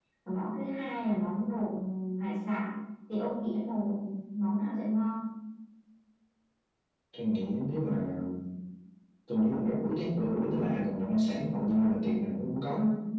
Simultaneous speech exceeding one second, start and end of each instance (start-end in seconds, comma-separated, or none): none